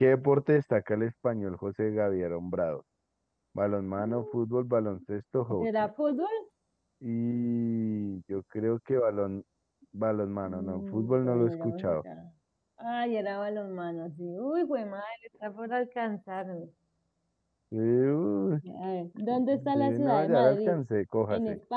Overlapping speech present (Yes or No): Yes